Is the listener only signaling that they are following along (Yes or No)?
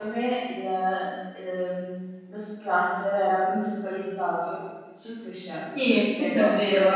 No